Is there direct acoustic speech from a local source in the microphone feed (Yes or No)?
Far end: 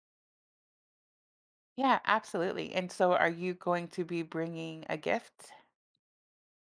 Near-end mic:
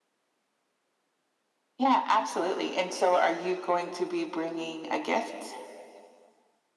No